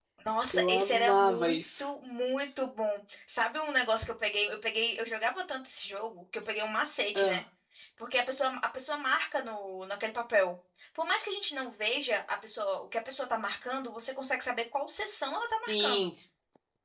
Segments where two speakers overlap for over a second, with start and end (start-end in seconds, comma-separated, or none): 0.5-1.9